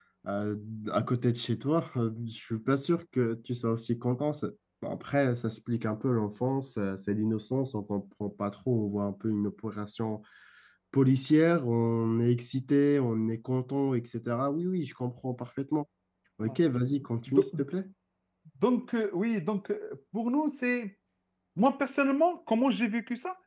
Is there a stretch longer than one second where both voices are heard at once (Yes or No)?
No